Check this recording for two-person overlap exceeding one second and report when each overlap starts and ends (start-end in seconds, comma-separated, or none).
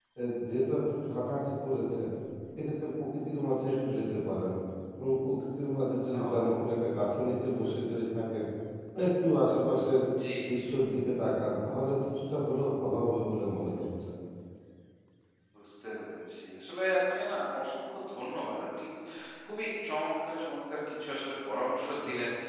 none